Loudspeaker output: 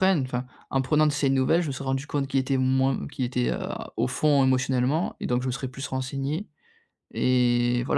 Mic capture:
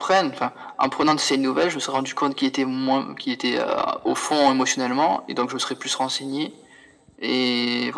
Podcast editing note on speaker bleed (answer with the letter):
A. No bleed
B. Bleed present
B